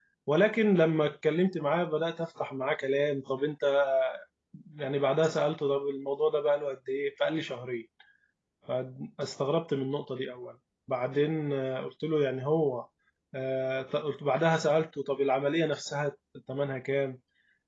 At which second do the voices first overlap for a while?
none

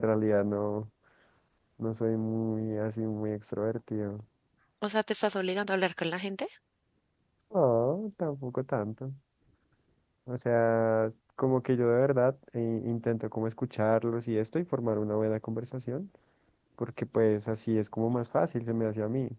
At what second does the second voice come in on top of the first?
none

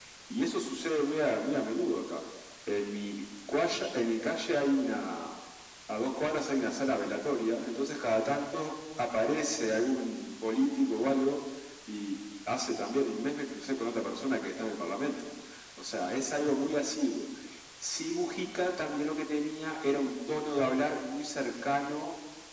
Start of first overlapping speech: none

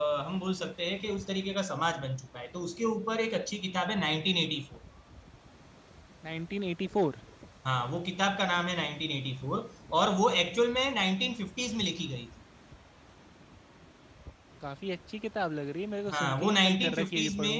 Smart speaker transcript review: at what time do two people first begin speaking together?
16.1 s

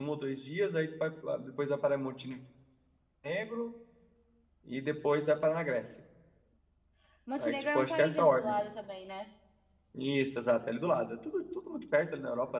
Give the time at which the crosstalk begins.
7.4 s

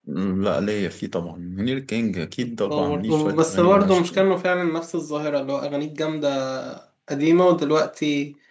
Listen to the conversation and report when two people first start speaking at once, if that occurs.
2.7 s

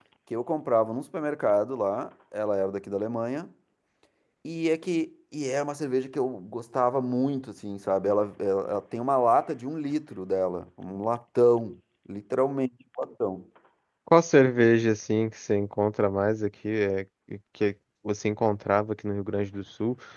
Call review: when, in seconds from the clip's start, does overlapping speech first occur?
none

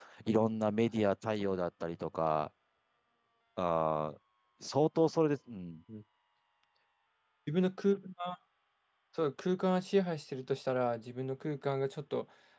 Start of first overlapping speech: none

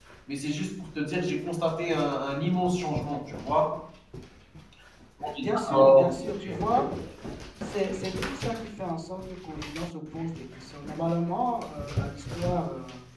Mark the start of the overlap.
5.4 s

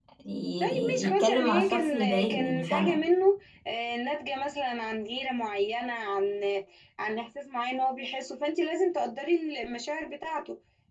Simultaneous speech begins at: 0.6 s

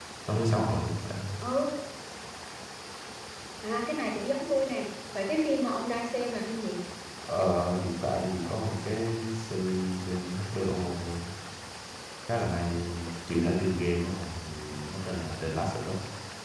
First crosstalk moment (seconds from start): none

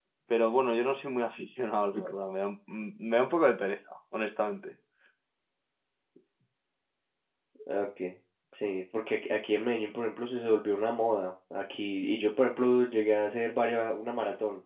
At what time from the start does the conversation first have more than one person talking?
none

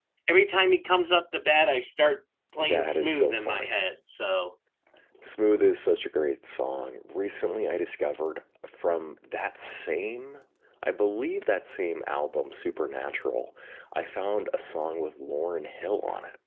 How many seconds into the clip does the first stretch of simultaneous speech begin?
2.5 s

